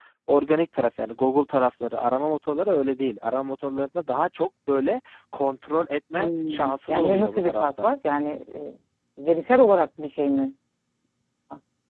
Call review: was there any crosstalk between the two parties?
Yes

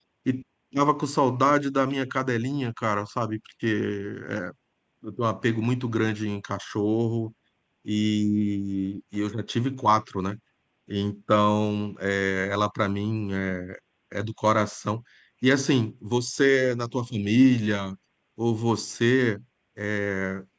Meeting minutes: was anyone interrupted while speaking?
No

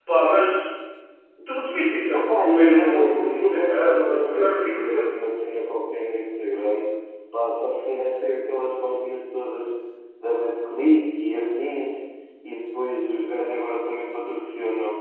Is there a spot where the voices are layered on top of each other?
Yes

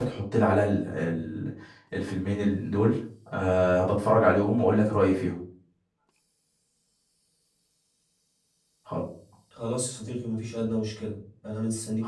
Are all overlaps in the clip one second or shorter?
Yes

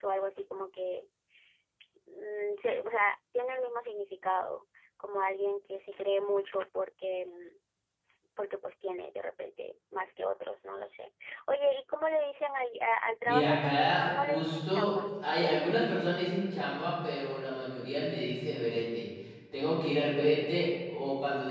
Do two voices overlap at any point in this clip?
Yes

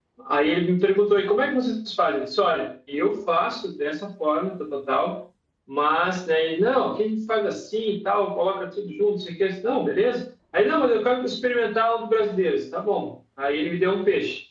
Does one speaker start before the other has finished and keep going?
No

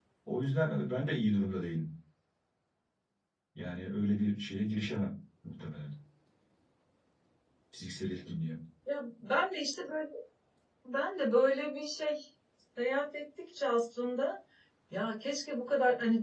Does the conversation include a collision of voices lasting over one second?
No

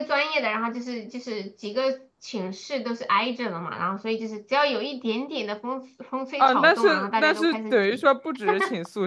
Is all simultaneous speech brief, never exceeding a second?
No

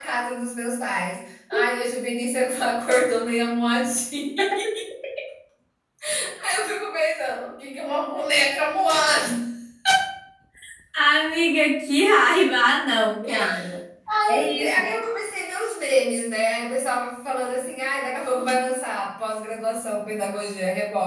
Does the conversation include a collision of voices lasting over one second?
No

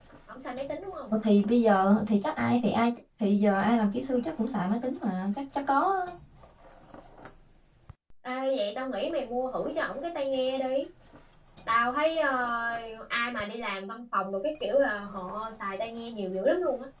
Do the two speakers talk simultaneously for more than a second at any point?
No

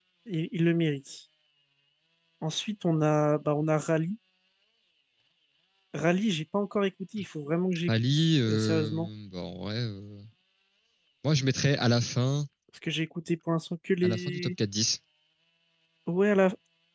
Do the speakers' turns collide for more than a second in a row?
Yes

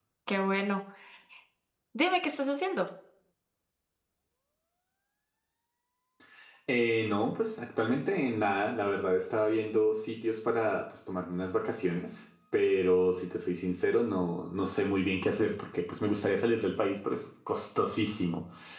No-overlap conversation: Yes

